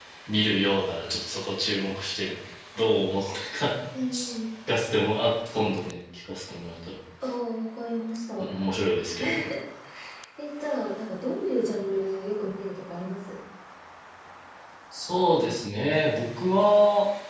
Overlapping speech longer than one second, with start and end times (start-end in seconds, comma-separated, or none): none